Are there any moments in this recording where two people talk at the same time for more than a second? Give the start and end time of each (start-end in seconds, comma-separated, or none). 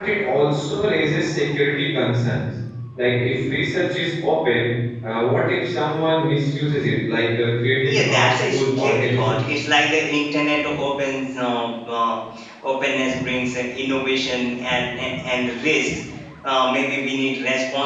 7.8-9.4